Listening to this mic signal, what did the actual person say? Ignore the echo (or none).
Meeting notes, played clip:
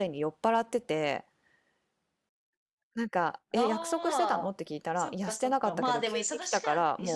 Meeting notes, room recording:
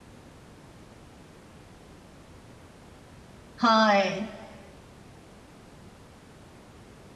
はい。